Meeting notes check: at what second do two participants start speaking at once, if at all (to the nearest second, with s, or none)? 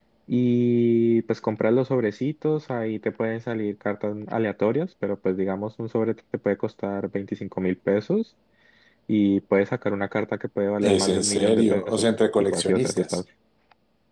11 s